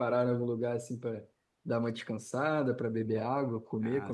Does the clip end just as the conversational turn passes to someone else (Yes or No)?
Yes